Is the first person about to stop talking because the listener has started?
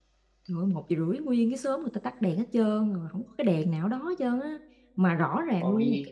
No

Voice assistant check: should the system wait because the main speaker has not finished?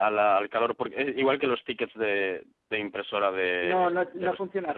No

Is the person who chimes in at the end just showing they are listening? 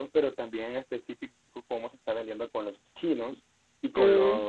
Yes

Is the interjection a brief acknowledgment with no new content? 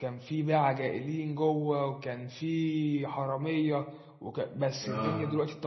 Yes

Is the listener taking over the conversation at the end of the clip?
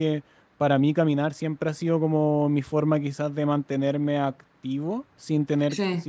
No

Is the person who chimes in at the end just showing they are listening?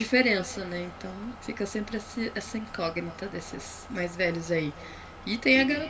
Yes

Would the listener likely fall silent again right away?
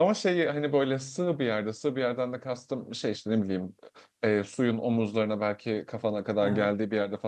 Yes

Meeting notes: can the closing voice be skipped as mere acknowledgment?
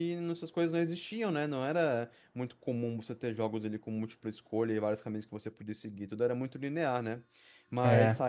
Yes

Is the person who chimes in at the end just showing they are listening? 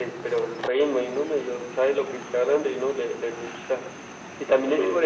Yes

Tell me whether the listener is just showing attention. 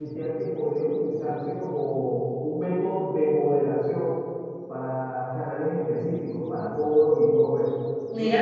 Yes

